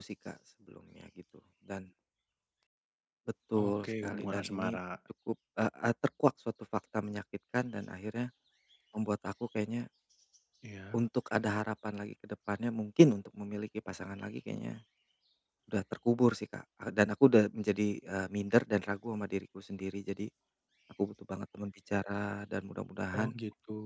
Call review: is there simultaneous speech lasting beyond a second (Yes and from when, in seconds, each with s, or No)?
Yes, from 3.6 s